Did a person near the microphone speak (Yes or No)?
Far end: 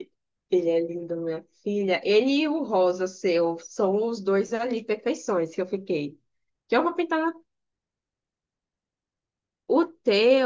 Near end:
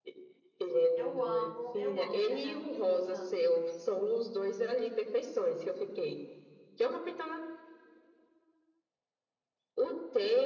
Yes